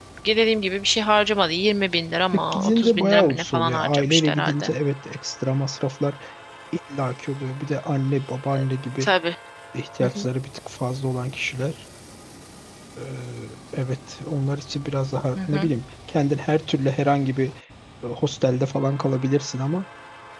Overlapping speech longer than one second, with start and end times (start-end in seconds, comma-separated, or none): 2.3-4.7